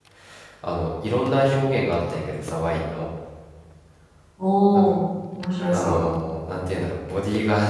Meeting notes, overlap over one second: none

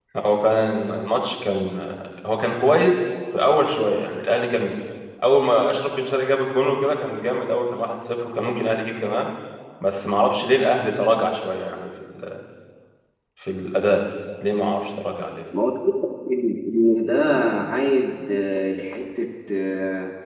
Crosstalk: none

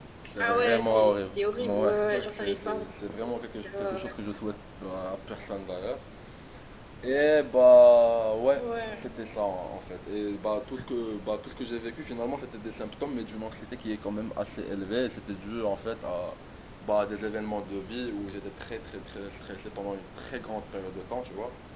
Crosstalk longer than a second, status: present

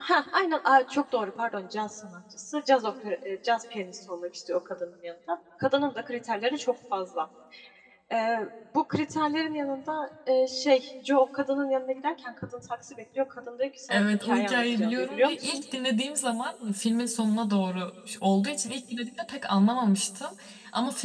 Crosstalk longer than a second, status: present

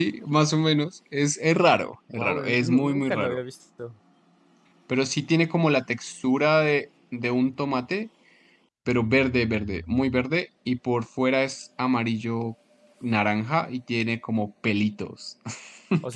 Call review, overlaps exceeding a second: present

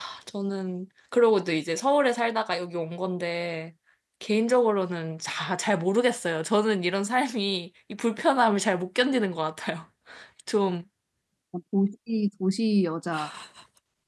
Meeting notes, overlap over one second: none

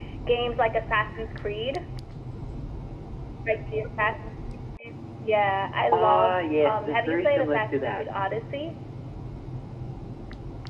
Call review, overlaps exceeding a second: present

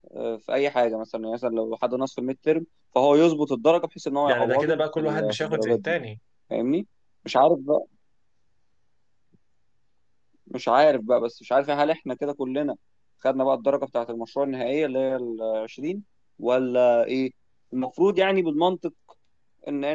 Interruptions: present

